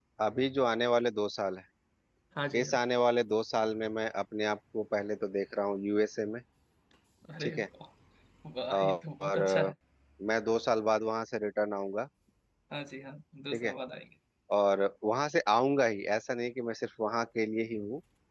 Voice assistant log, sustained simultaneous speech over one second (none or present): none